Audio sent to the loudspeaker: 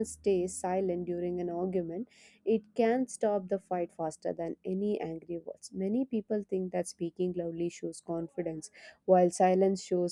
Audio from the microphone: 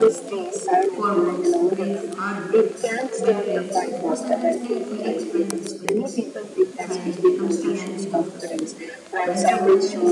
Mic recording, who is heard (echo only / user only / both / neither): both